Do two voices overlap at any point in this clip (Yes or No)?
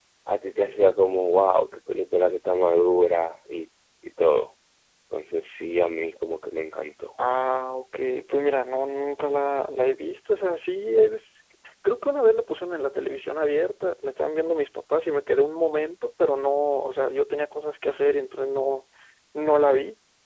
No